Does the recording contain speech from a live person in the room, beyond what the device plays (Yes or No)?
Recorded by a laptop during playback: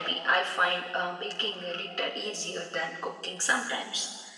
No